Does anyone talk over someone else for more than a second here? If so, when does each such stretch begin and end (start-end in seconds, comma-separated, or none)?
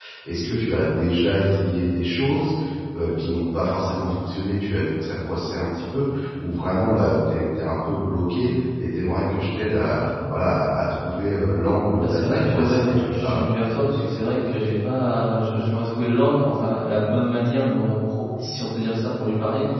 12.0-13.5